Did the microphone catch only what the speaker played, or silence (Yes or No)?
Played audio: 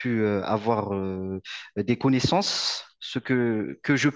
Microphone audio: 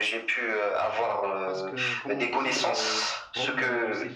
No